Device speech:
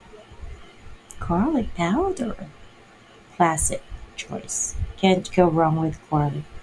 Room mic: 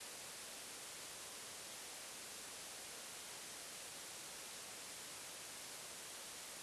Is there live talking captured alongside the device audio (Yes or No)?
No